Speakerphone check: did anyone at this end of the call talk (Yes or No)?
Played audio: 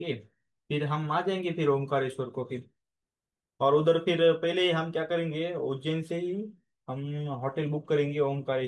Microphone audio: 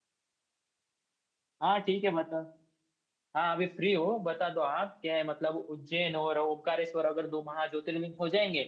Yes